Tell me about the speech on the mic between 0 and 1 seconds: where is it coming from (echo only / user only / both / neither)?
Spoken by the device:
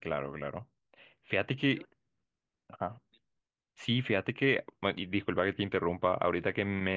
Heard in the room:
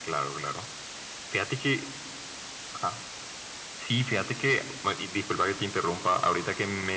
echo only